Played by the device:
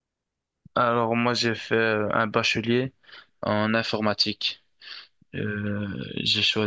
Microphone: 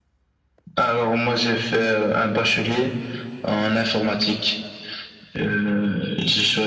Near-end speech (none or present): none